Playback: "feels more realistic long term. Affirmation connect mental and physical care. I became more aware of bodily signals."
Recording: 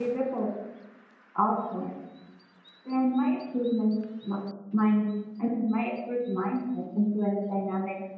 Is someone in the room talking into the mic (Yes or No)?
Yes